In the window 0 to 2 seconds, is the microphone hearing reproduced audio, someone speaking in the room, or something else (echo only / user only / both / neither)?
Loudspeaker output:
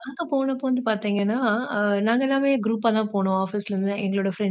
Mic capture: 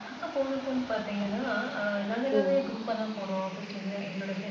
echo only